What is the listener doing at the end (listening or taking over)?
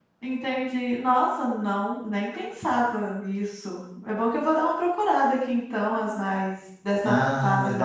taking over